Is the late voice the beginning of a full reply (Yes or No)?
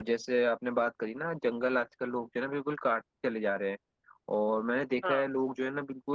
No